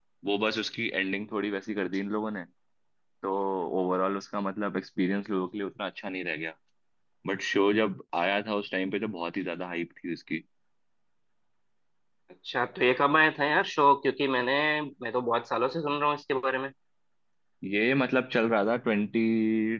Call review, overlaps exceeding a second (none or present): none